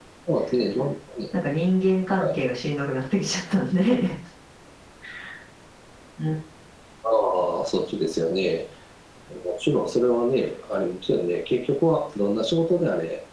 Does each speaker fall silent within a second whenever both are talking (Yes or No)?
Yes